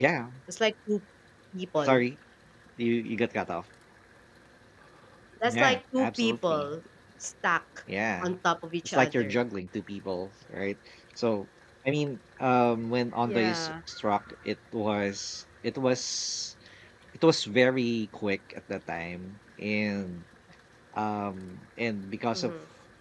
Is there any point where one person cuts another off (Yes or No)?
Yes